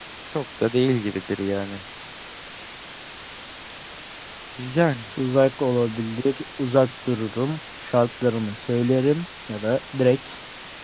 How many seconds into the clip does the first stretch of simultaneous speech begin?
none

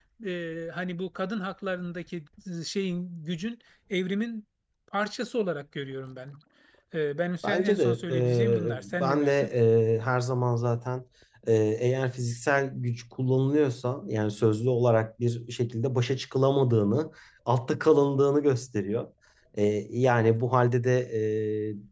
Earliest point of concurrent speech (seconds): 7.4 s

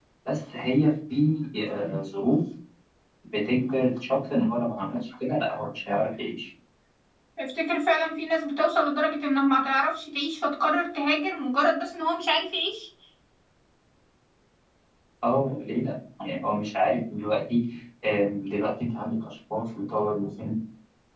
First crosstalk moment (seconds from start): none

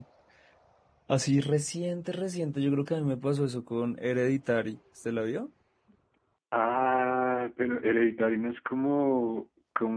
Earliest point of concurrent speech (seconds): none

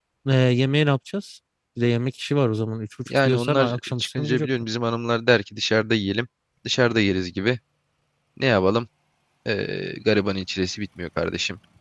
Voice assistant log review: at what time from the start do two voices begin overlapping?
3.1 s

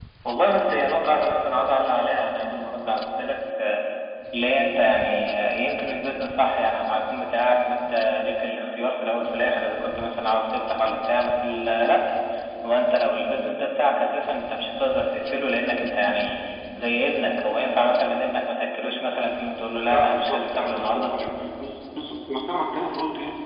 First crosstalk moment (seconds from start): 19.8 s

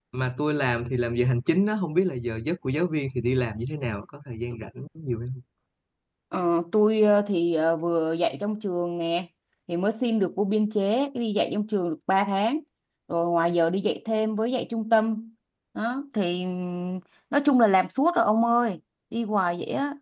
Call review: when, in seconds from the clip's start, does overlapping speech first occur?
none

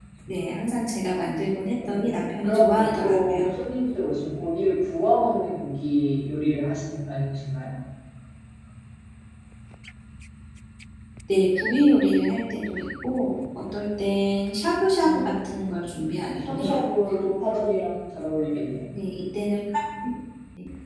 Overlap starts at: 1.9 s

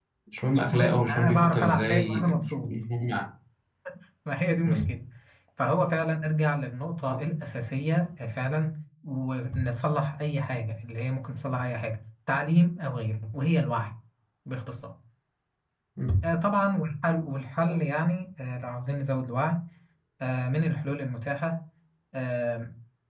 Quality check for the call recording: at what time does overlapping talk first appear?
0.7 s

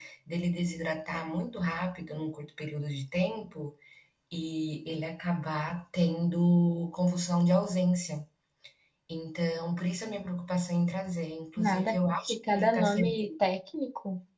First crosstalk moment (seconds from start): 11.6 s

